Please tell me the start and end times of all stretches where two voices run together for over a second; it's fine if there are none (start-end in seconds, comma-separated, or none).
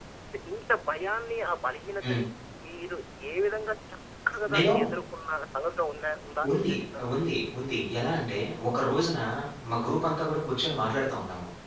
none